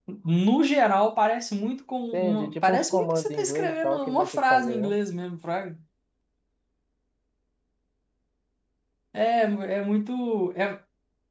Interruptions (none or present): present